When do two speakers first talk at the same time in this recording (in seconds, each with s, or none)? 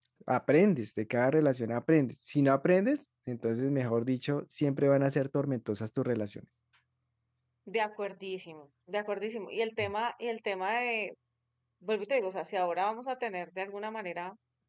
none